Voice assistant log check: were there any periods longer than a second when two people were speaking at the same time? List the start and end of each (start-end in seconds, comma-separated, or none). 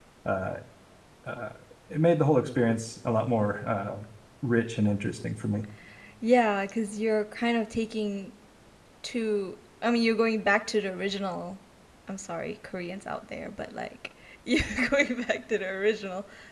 none